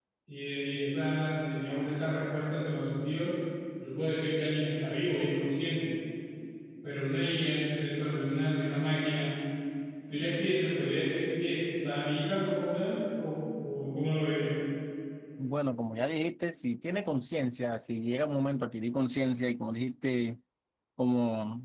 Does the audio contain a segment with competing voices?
No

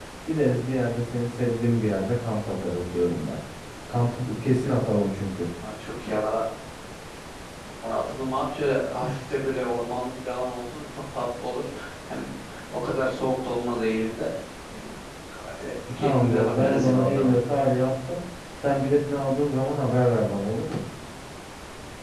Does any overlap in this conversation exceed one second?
Yes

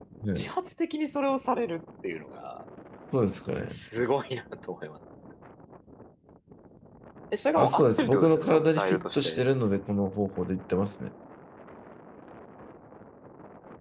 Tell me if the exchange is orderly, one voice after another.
No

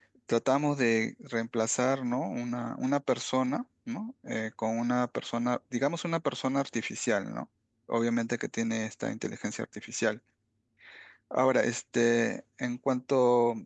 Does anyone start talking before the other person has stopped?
No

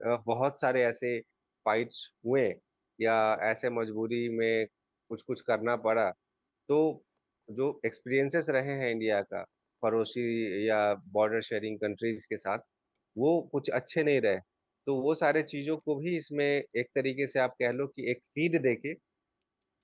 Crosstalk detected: No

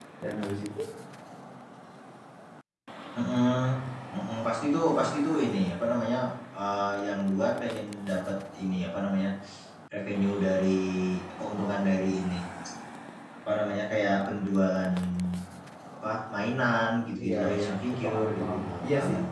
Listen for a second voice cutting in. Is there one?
Yes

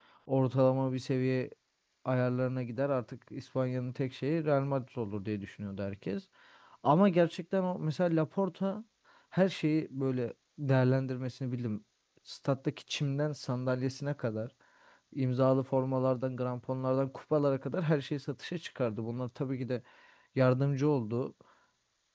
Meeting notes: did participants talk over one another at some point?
No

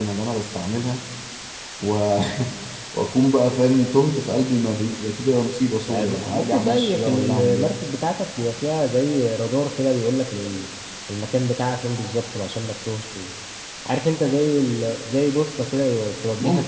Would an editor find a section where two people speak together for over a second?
Yes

